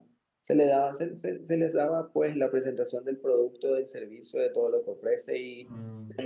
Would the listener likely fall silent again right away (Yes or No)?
Yes